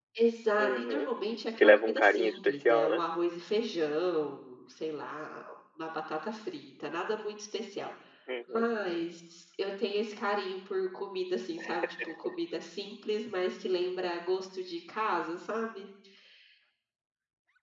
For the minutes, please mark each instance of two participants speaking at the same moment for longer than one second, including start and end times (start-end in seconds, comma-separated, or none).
1.6-3.1